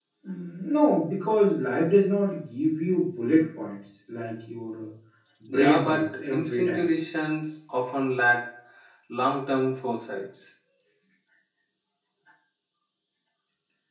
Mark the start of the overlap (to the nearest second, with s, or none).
5 s